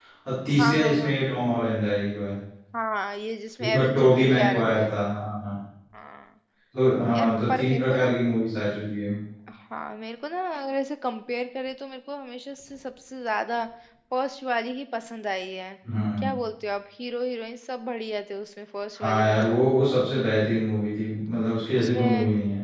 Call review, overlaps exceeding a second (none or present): present